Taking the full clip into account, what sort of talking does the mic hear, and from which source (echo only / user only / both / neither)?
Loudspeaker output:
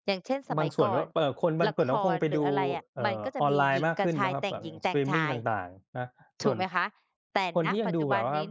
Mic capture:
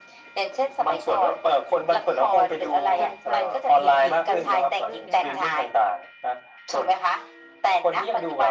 both